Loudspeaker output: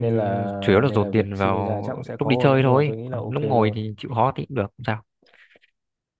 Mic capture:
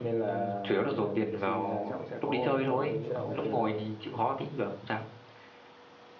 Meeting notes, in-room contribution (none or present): present